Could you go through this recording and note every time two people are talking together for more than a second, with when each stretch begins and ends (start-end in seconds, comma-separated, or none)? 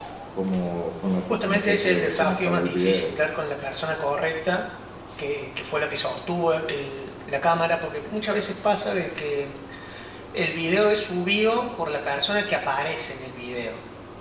1.3-3.1